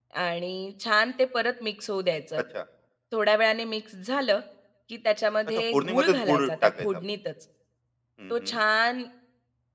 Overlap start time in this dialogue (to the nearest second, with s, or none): 5 s